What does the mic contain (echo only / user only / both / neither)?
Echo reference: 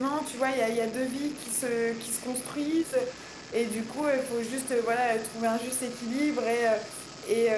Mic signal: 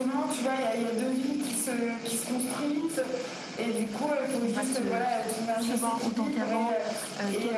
both